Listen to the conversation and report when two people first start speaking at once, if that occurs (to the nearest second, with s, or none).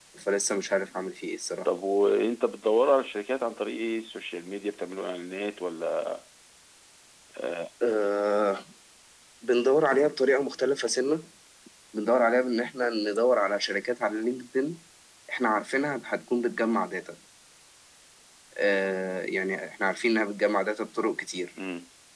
none